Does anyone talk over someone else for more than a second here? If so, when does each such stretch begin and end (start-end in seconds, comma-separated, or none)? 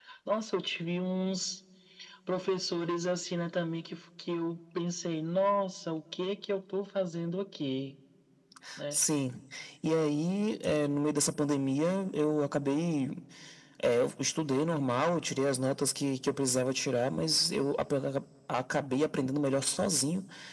none